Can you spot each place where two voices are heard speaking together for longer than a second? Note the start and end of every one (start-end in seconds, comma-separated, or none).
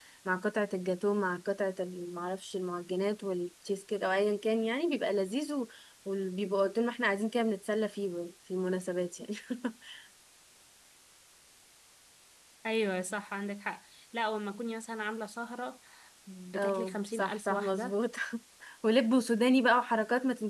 16.6-17.9